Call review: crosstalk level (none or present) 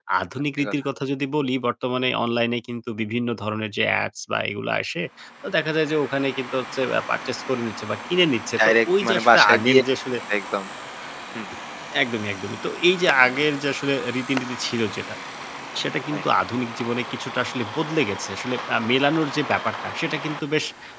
present